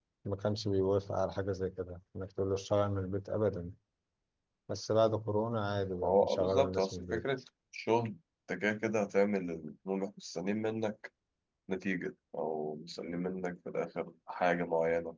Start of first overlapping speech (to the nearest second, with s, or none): 6 s